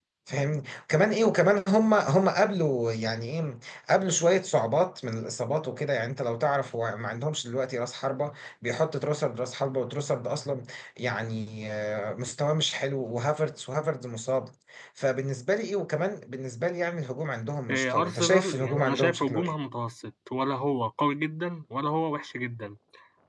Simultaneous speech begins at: 18 s

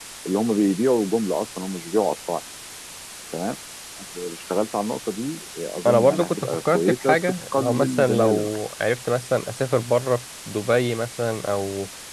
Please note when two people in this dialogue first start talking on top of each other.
6 s

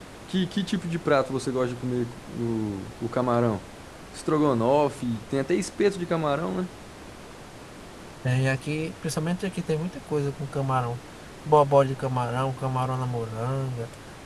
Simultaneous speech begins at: none

